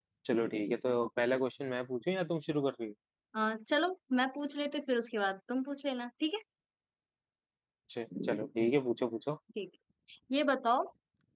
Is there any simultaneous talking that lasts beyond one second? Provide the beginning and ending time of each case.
none

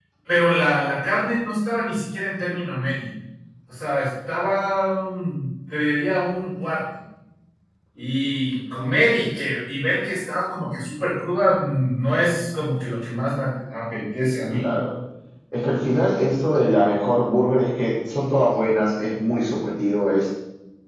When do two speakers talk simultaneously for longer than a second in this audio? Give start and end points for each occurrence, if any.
none

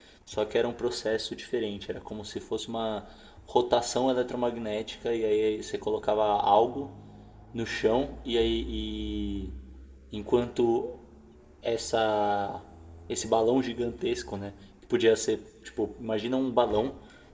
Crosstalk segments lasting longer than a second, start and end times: none

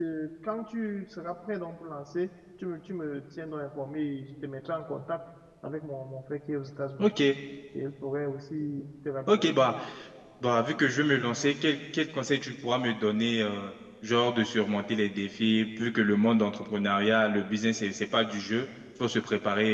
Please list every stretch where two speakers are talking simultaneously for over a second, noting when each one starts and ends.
none

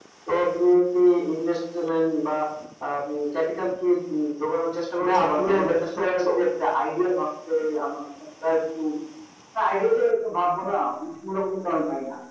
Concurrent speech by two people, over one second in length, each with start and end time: 5.1-6.3

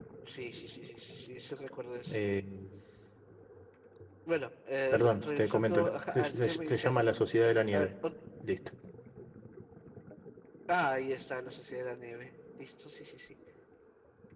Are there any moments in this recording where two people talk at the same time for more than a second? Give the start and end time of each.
4.9-7.0

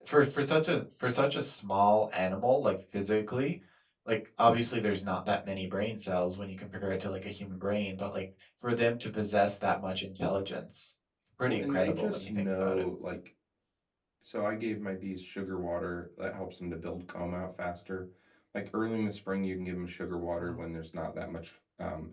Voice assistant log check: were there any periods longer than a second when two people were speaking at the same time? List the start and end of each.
11.5-12.8

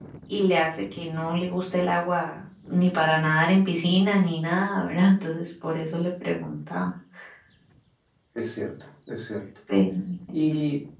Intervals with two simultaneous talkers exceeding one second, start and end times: none

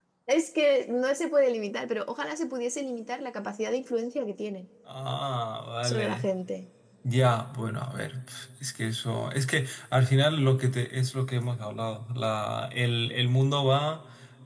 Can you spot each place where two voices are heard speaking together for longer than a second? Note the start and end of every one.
none

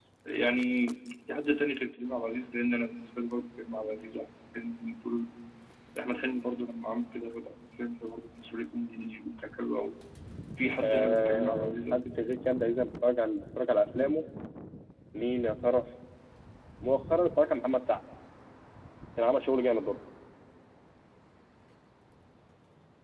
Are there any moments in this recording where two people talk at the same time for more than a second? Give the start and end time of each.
10.8-12.2

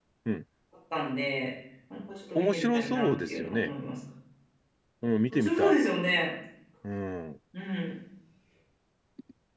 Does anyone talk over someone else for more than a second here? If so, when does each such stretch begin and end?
2.4-3.7

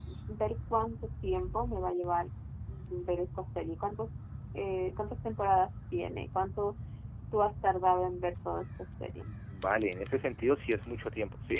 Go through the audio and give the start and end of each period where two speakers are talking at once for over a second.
none

